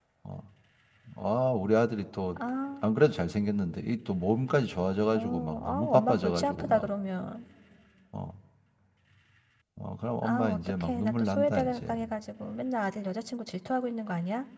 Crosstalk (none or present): present